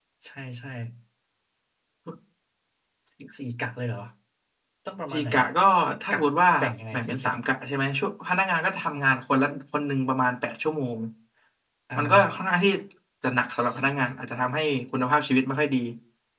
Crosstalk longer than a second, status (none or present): none